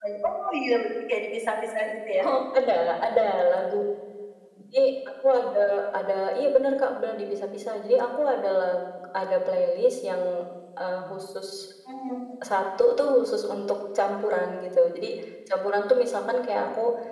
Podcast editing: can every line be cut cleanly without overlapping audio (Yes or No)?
Yes